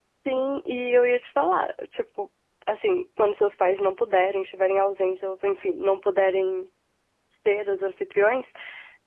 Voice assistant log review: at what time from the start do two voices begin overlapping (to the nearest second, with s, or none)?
none